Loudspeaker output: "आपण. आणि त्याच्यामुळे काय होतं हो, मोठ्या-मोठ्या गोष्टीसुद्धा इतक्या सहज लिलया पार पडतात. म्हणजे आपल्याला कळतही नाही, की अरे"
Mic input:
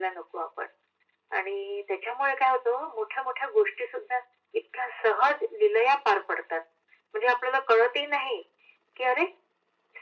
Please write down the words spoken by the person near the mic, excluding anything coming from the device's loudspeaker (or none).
none